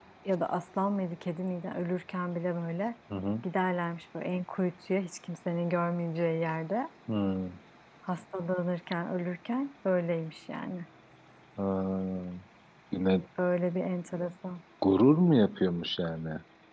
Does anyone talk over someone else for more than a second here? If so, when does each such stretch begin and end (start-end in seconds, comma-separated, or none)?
none